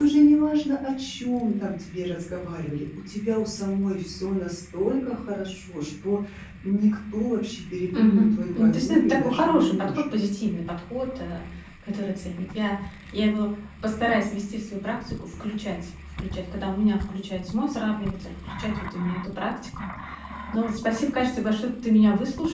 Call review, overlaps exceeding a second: present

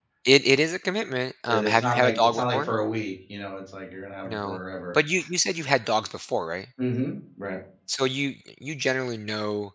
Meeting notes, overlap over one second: present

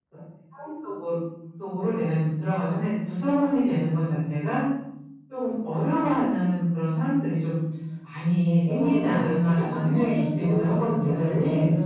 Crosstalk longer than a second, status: present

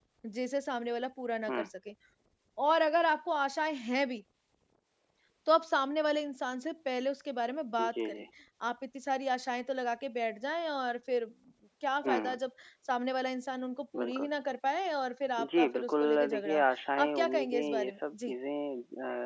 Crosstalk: present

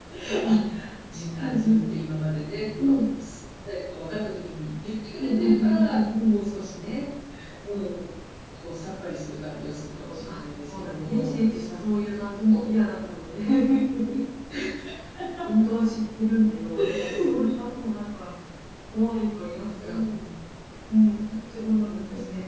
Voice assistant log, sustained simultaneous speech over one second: present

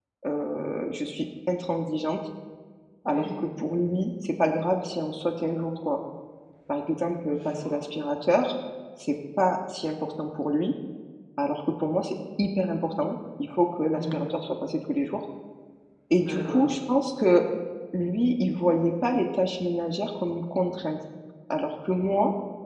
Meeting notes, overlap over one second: none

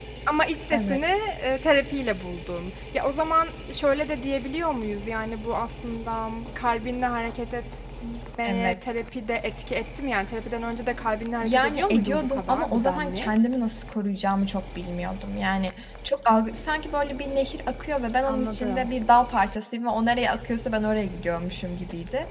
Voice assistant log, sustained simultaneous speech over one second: present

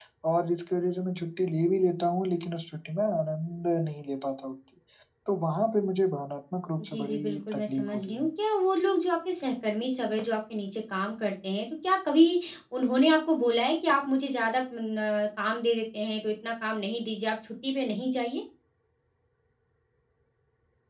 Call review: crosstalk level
present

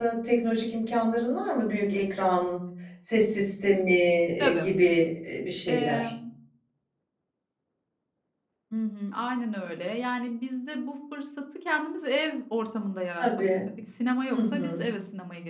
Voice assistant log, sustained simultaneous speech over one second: none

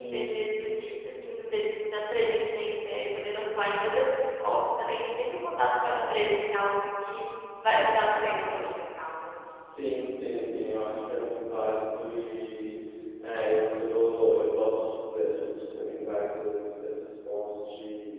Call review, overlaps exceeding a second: none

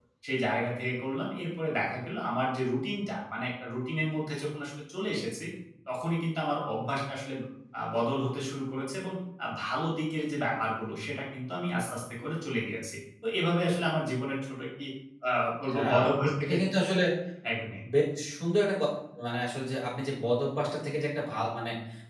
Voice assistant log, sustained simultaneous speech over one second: none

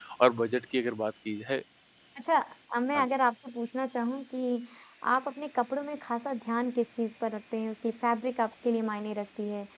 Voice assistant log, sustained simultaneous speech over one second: none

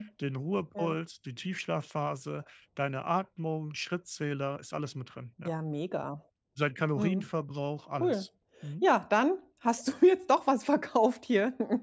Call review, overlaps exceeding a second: none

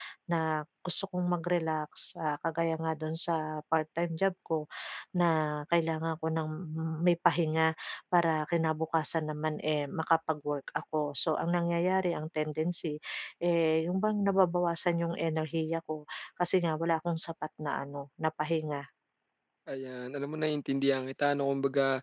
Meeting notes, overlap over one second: none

